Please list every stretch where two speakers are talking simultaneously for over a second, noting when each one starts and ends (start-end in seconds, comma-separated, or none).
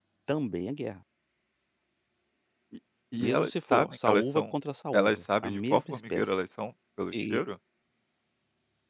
3.2-4.4, 4.9-6.2